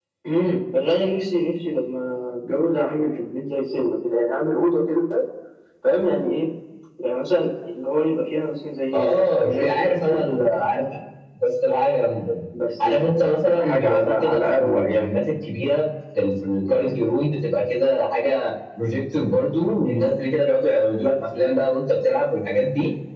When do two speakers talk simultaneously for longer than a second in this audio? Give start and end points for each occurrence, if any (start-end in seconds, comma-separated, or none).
8.9-10.4, 12.8-15.1